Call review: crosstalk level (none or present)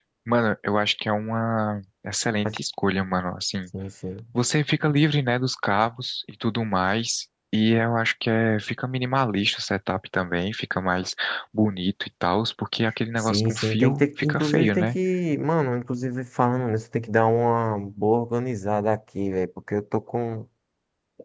present